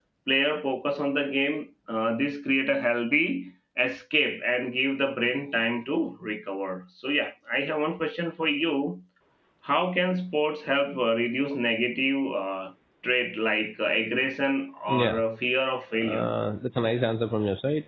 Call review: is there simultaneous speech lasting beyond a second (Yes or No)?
No